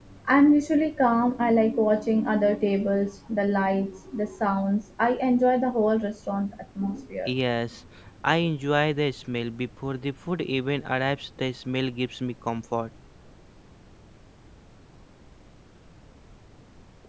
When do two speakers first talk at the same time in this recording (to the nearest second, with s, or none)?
none